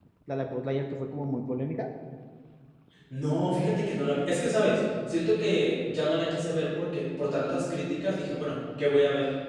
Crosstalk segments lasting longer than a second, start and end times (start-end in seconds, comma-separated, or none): none